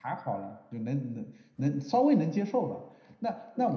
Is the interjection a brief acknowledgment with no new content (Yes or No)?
Yes